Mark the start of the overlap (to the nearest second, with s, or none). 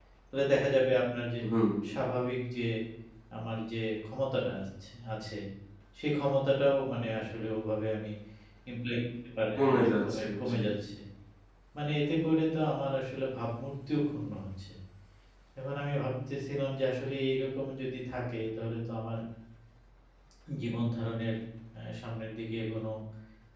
10 s